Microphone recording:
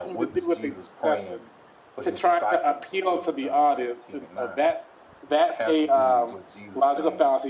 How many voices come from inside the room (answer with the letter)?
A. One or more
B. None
A